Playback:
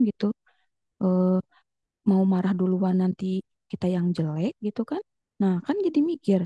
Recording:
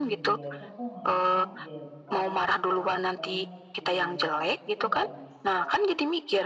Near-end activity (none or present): present